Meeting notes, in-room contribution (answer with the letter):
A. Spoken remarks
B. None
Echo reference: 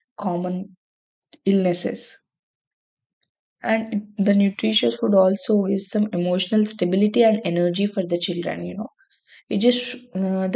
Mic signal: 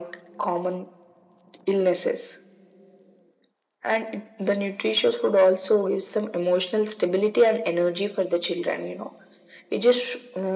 B